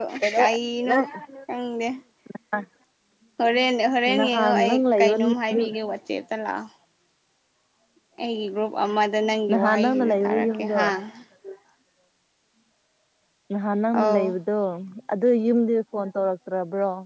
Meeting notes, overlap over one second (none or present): present